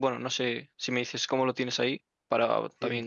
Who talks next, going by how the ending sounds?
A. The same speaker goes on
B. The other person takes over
B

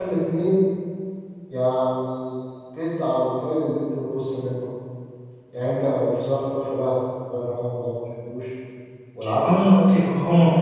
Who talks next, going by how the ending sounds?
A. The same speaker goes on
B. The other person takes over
B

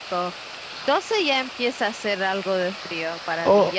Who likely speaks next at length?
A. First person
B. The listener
B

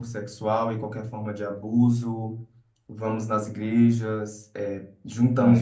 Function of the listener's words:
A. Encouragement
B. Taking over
A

